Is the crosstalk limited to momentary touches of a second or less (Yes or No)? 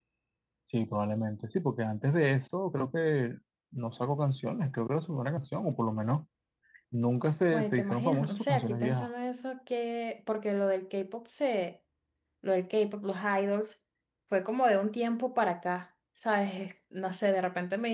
No